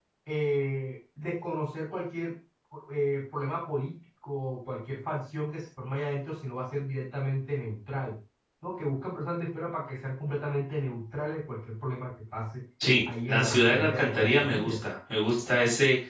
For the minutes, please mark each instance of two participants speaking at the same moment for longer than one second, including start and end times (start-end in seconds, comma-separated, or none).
13.3-14.8